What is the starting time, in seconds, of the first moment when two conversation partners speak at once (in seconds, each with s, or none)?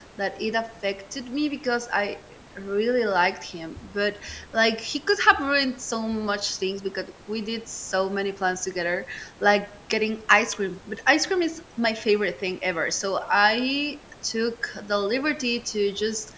none